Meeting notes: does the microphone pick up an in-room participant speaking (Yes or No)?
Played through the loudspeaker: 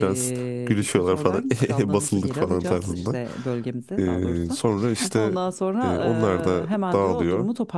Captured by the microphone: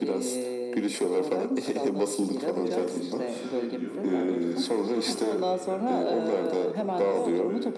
Yes